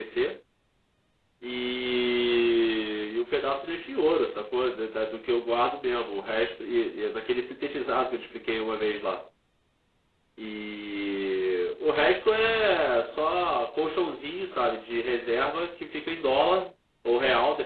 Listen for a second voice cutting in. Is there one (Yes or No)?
No